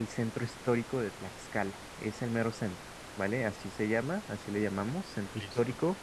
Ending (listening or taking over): listening